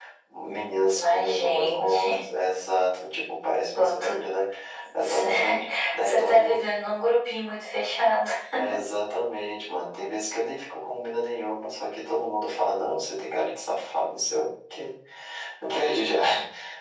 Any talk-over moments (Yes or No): Yes